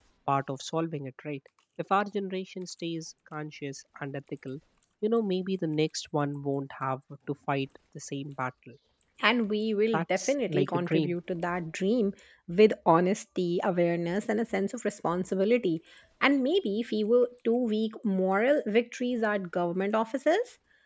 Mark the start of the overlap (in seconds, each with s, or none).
9.9 s